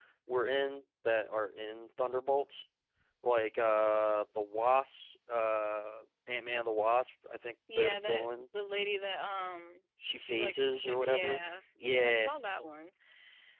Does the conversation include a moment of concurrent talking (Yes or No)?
Yes